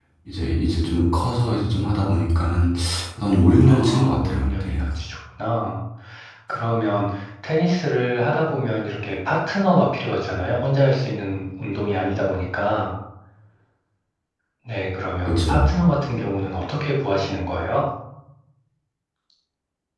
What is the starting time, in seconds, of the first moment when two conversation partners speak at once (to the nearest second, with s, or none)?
4 s